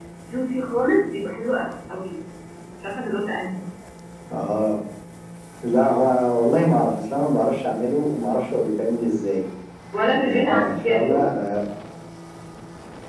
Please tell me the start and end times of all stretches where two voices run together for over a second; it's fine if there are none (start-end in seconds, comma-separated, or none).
10.0-11.2